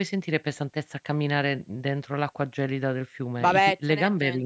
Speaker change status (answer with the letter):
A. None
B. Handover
B